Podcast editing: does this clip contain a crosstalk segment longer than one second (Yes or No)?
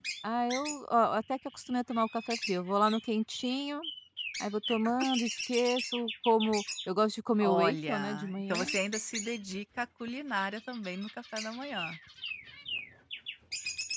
Yes